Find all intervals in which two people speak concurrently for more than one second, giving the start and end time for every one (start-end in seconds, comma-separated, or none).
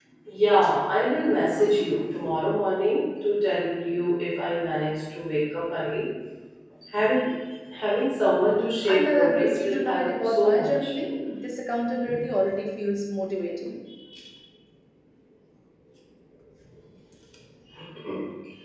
8.8-10.9